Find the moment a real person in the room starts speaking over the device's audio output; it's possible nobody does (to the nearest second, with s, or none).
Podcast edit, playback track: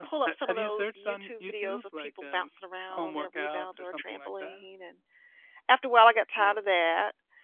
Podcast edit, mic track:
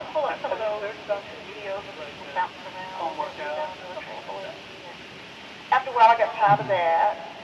6 s